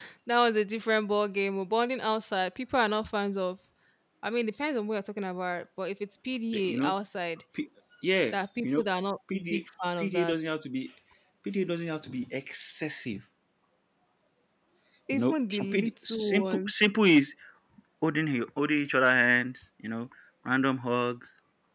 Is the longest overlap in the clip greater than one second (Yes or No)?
Yes